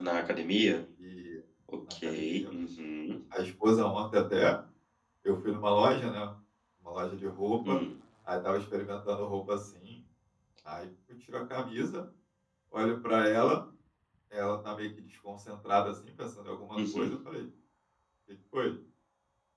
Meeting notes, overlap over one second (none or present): none